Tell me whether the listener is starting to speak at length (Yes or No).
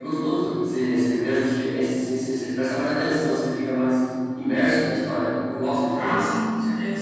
Yes